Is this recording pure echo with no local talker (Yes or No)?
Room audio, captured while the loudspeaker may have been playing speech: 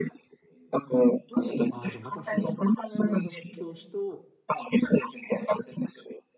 No